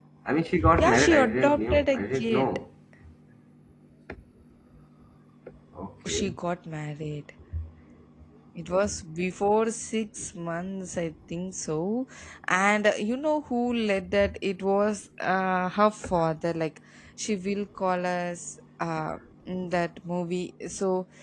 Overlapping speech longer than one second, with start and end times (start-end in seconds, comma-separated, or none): 0.7-2.5